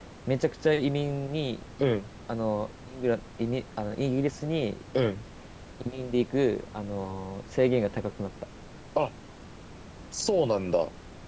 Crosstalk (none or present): none